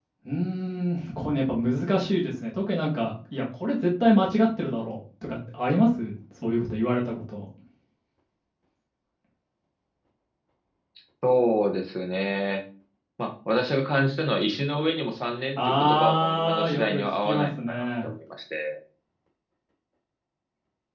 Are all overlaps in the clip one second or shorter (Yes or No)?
No